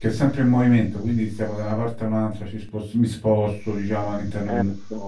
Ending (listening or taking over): listening